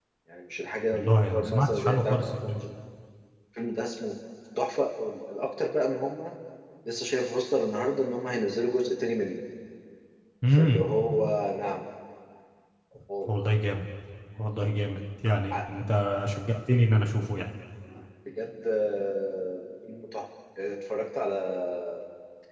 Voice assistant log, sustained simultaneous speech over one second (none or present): present